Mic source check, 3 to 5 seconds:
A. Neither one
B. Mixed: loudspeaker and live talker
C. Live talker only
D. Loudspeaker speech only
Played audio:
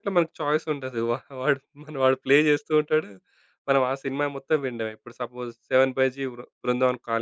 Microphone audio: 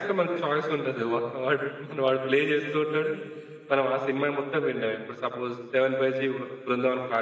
D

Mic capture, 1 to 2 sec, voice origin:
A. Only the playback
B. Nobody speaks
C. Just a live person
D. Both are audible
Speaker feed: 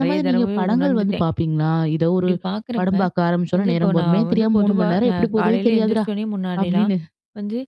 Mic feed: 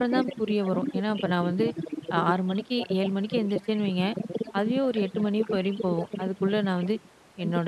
D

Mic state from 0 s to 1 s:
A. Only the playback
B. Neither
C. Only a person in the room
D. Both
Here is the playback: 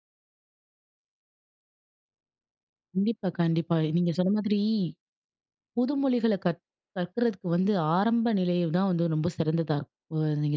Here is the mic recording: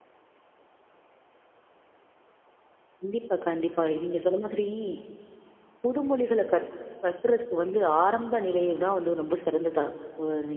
B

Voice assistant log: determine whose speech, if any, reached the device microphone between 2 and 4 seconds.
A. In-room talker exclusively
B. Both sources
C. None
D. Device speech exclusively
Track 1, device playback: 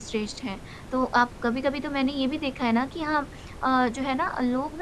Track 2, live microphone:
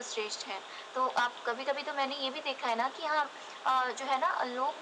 D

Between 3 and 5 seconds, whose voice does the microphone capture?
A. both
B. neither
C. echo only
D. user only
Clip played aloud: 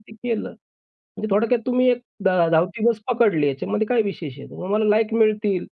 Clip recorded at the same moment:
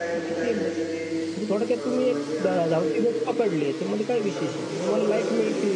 A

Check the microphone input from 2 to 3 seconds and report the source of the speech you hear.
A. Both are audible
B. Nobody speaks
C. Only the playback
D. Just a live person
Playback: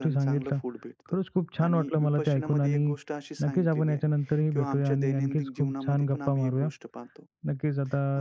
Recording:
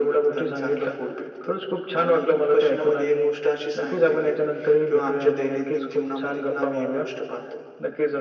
C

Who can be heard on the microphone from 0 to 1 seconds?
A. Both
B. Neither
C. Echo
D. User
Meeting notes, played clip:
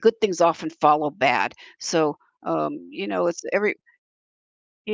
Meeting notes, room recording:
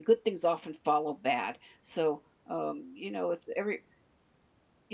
C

